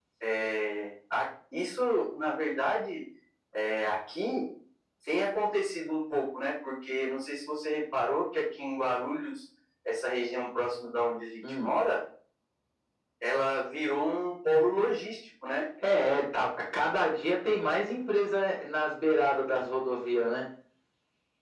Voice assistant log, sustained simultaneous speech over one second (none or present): none